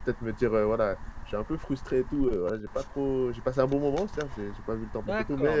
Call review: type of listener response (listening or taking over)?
taking over